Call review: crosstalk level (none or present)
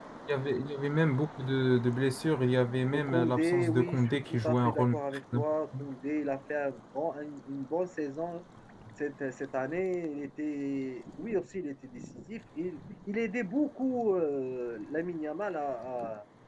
present